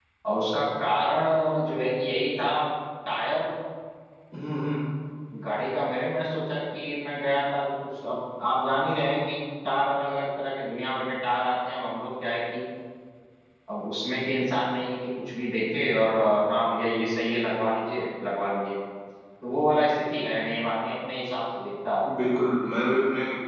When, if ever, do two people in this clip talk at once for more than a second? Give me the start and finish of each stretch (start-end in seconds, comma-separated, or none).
none